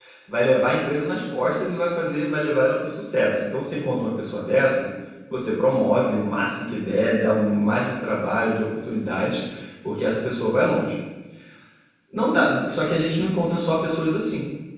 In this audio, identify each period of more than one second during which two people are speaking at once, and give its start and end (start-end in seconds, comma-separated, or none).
none